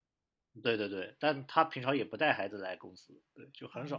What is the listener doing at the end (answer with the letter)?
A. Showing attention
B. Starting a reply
A